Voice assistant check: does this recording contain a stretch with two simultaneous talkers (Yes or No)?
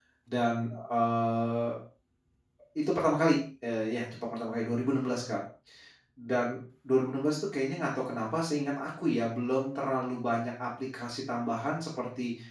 No